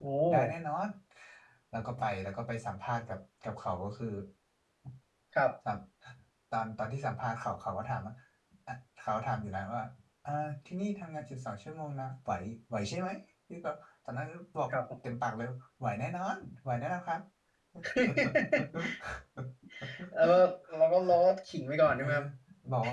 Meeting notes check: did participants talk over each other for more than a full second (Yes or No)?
No